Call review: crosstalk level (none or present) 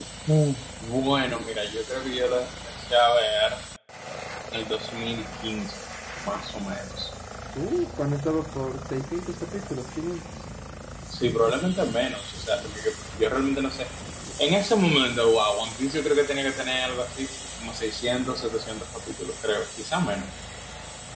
none